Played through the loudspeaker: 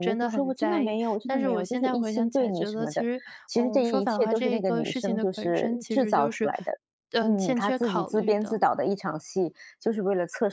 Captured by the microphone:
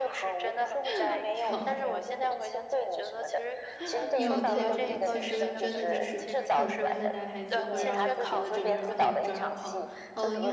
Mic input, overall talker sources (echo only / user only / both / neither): both